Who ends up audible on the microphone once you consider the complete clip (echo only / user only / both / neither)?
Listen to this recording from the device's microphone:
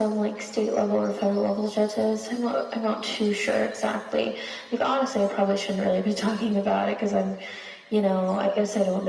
echo only